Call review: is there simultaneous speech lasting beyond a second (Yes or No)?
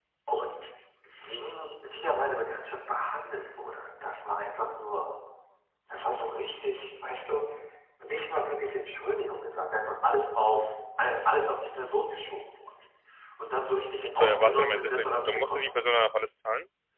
Yes